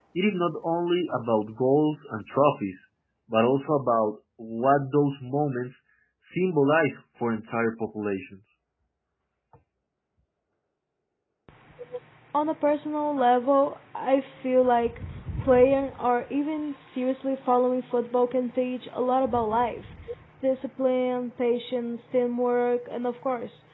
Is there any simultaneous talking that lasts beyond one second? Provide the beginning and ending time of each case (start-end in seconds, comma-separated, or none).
none